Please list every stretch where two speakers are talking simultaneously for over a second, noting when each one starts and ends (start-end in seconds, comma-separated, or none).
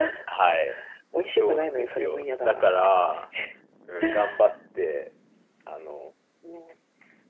1.3-3.2